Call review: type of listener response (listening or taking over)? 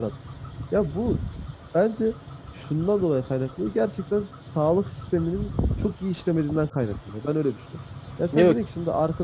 listening